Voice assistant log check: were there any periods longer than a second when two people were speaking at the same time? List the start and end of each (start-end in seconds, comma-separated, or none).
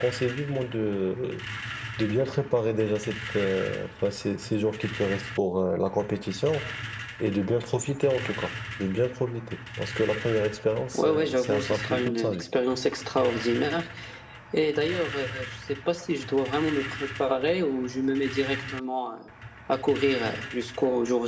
11.0-12.4